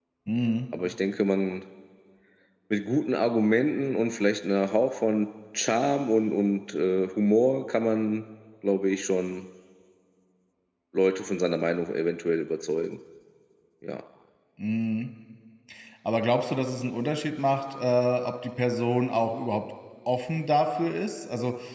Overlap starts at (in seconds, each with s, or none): none